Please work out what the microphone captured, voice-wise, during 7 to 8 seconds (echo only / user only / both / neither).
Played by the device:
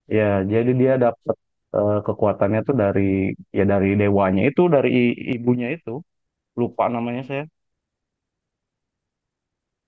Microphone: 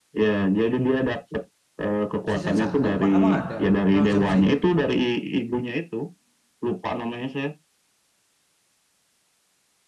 echo only